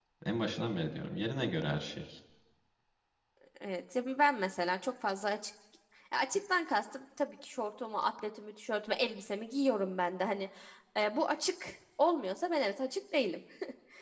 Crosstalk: none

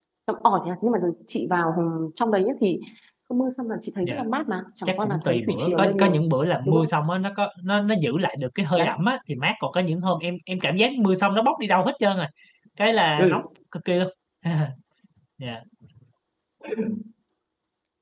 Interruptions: present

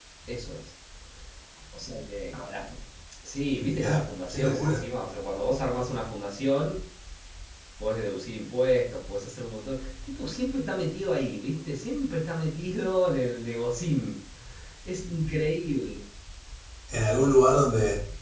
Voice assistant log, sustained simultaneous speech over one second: present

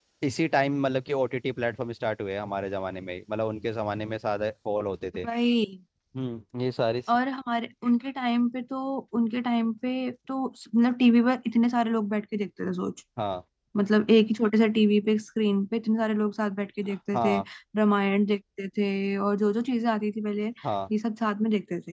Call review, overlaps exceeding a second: none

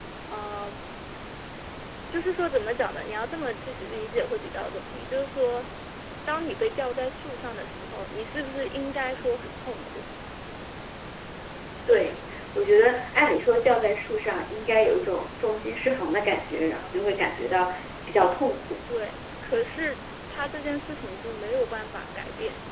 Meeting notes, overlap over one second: none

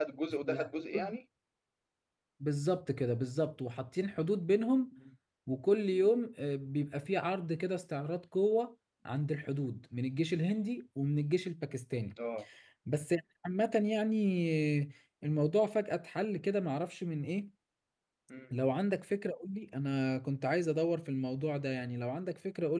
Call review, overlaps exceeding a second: none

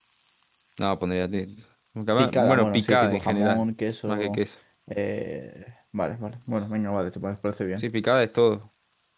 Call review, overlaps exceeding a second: present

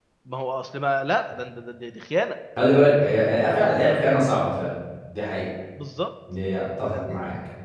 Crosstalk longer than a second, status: none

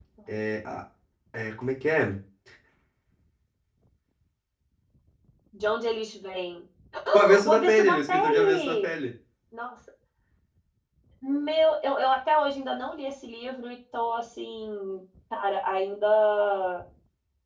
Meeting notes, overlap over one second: present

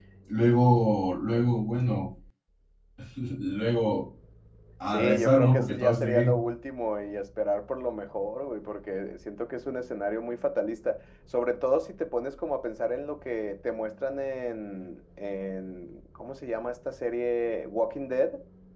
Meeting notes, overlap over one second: present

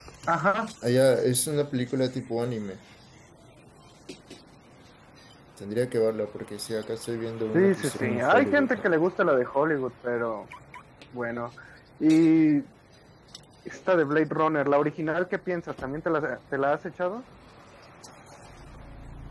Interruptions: present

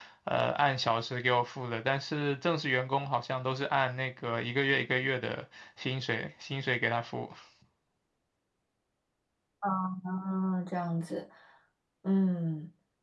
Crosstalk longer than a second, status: none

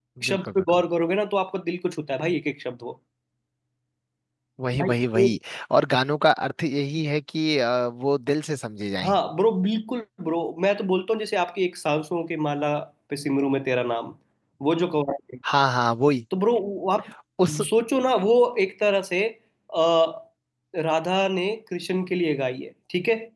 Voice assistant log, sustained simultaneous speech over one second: none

